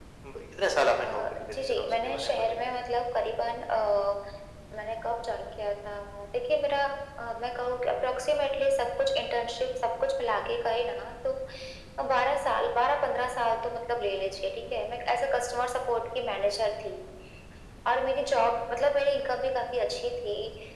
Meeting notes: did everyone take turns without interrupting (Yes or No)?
No